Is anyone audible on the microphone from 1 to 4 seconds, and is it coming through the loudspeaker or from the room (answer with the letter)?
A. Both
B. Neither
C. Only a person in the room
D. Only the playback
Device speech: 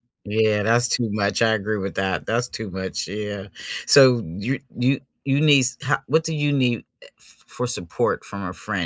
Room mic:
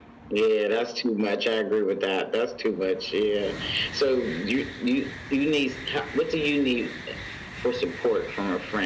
D